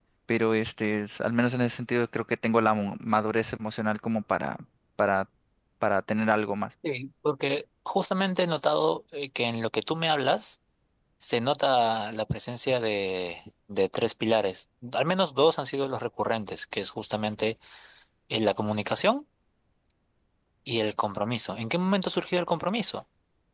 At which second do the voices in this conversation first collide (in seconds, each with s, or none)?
none